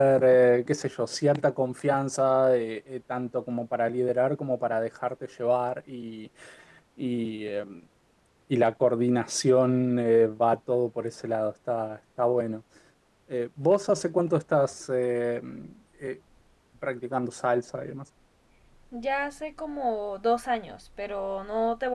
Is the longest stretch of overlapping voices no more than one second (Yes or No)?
Yes